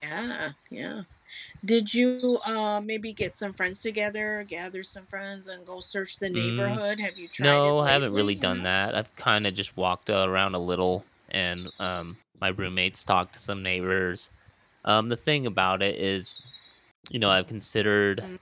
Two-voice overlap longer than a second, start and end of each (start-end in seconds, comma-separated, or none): 7.4-8.7